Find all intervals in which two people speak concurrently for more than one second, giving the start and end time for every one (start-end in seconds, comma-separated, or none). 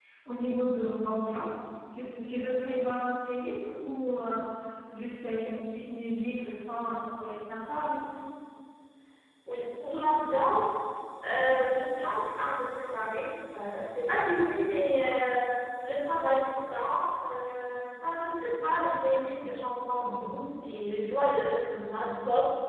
none